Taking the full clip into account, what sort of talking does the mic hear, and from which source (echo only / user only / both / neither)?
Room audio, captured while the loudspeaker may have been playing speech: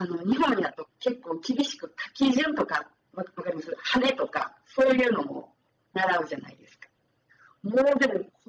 echo only